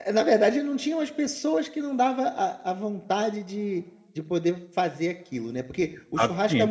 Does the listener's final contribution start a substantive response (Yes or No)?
No